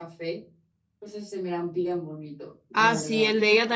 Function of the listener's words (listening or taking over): taking over